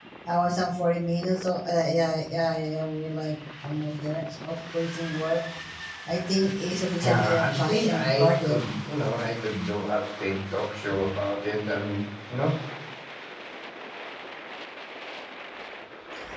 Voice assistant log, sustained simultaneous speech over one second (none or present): present